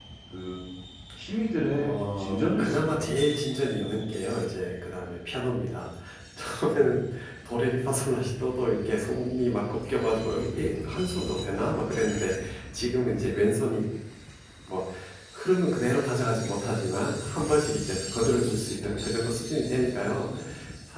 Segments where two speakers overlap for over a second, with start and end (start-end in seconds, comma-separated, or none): 1.7-3.1